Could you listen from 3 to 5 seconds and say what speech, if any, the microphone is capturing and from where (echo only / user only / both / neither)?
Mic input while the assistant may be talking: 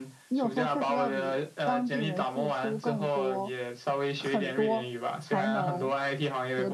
both